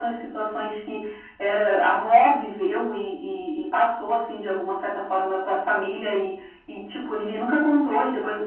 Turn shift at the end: No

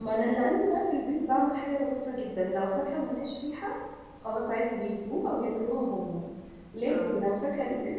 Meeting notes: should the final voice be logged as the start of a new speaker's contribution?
No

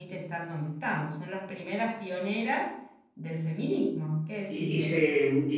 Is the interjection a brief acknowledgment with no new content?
No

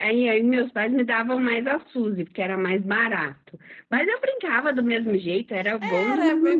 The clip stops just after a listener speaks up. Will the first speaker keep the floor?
No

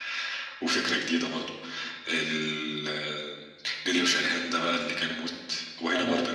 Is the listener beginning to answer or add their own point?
No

